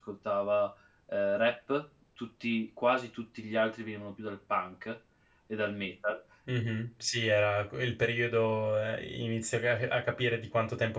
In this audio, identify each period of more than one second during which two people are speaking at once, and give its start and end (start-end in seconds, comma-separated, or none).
none